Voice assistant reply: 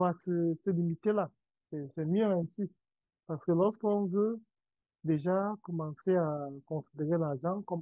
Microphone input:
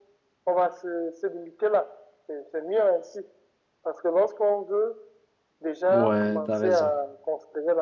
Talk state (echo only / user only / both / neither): both